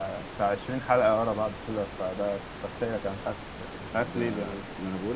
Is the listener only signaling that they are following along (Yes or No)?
No